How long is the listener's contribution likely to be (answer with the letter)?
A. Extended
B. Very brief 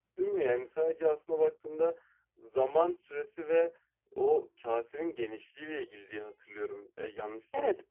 A